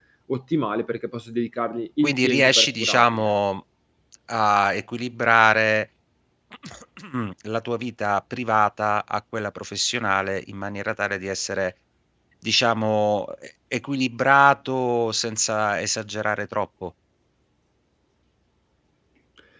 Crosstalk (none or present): present